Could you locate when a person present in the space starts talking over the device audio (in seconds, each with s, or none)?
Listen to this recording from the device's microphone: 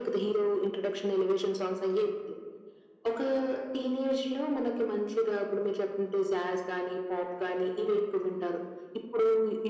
none